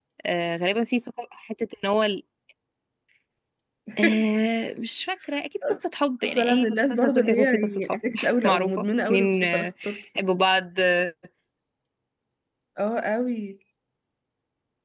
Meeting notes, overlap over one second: present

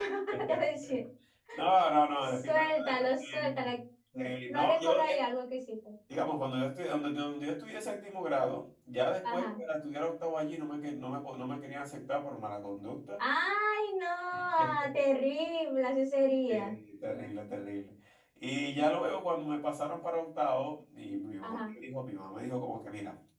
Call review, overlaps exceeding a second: present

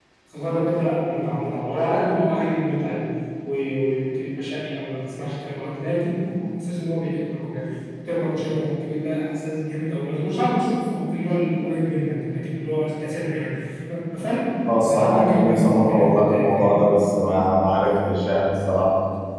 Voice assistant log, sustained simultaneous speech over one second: present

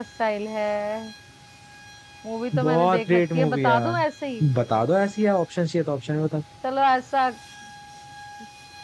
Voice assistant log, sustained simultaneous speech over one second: present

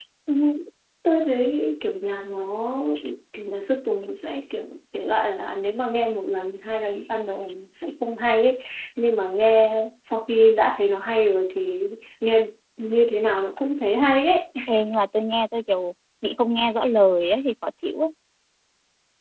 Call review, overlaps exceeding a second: none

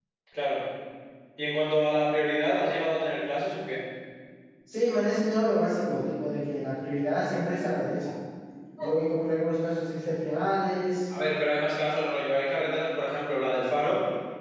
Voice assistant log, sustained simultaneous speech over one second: none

